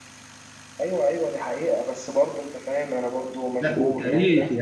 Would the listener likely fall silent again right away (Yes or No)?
No